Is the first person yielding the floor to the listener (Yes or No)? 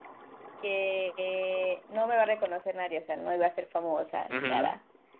Yes